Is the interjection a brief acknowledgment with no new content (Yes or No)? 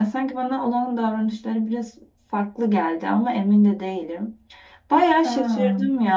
Yes